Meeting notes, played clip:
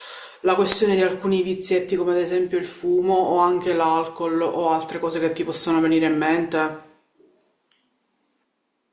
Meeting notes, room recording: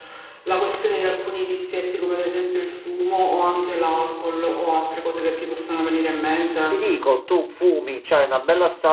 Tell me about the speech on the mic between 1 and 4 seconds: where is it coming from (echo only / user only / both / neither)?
echo only